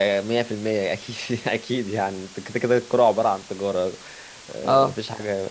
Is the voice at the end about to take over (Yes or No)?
No